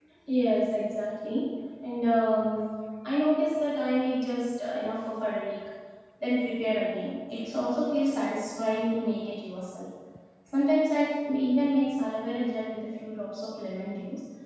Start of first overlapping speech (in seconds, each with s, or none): none